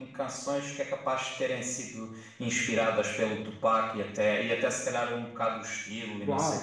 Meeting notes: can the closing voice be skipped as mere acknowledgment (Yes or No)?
No